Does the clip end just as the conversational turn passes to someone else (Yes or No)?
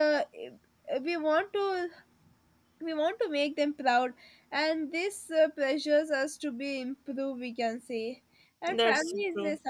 No